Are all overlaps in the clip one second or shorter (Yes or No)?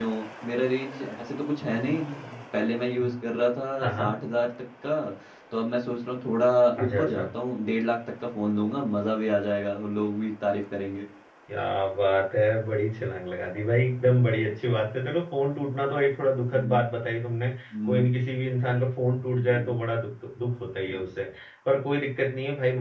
Yes